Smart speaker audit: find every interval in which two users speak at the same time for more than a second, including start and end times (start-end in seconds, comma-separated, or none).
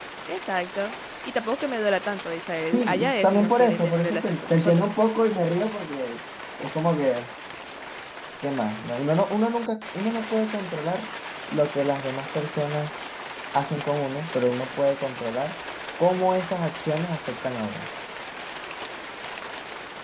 2.7-4.8